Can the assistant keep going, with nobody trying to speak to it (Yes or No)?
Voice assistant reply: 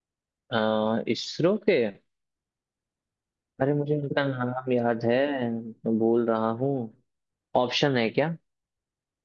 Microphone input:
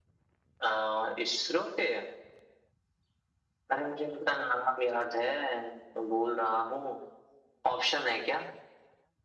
Yes